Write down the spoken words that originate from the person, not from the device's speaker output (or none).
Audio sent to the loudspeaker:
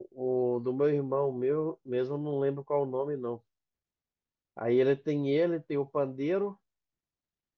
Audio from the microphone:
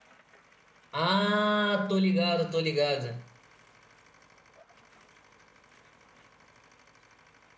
Ah, tô ligado, tô ligado.